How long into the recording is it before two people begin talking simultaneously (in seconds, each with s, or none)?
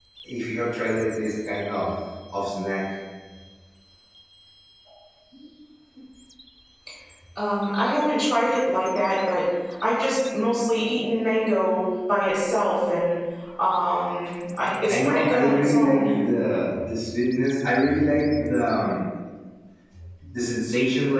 14.9 s